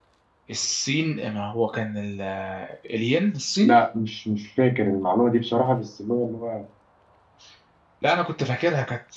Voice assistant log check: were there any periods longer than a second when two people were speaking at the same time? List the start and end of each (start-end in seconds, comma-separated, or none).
none